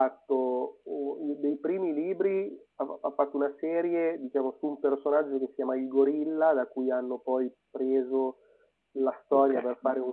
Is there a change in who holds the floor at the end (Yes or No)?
No